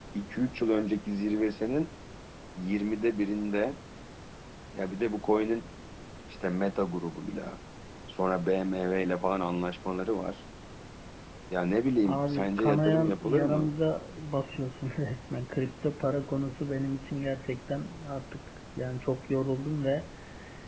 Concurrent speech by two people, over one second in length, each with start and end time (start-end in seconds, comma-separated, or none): 12.1-13.7